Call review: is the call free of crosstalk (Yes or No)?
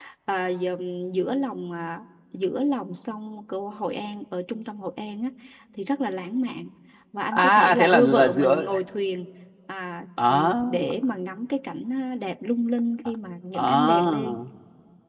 No